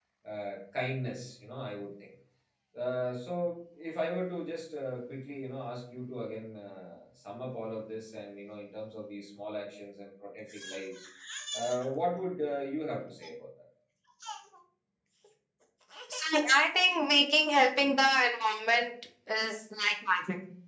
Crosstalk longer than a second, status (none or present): none